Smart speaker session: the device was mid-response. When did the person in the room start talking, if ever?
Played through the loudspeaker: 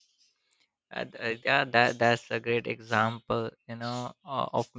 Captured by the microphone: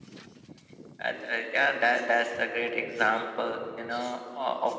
none

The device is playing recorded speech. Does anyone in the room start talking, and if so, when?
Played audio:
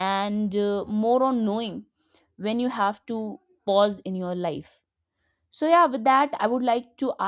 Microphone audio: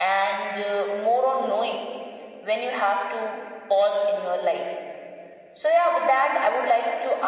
none

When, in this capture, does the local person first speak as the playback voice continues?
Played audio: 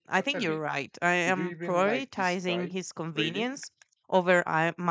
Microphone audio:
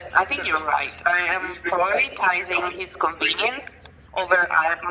none

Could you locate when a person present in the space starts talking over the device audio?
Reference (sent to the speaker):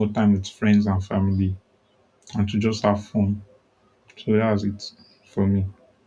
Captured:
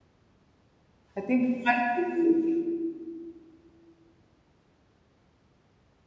1.2 s

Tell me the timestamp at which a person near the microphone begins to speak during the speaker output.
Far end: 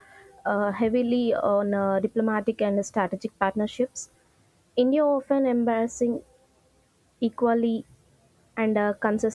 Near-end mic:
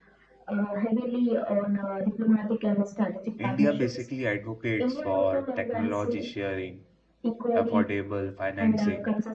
3.4 s

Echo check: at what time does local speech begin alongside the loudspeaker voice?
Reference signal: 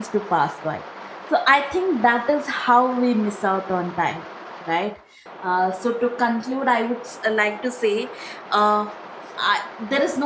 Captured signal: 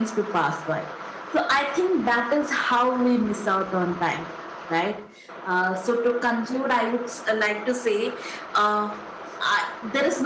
none

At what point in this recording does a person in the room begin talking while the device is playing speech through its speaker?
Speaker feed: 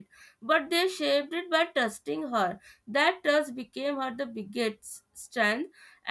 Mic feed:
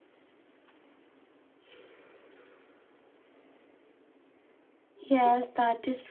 5.1 s

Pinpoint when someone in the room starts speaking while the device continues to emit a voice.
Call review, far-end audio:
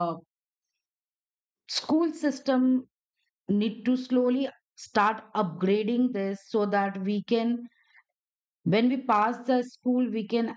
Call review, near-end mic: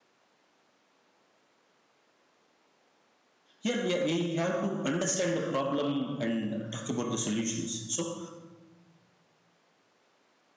3.6 s

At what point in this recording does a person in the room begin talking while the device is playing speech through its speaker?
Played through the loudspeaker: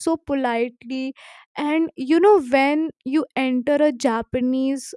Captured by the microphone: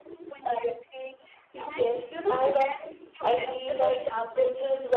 1.5 s

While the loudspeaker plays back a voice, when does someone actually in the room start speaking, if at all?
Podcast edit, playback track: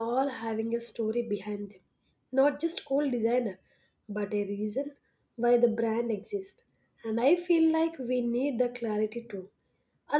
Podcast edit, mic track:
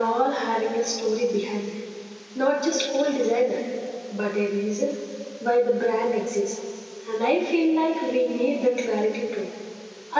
none

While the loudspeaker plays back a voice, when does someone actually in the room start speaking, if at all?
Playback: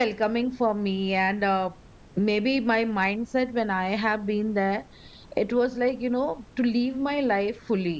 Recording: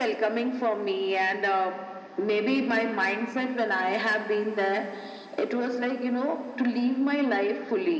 none

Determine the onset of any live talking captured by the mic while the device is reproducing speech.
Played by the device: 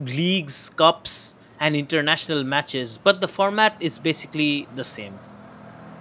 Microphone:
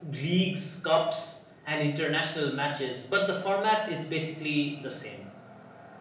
none

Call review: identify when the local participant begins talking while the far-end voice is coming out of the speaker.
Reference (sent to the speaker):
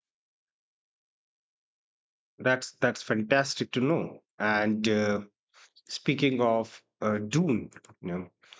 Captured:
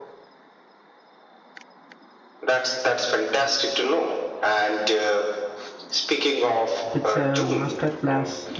6.9 s

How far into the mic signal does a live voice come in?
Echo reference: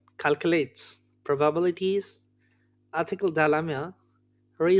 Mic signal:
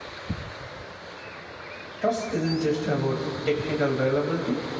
2.0 s

